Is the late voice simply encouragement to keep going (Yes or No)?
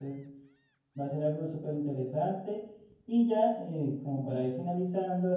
Yes